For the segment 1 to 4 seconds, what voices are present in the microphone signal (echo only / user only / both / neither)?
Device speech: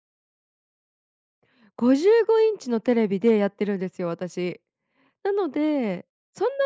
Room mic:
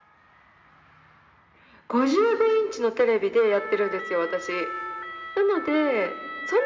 echo only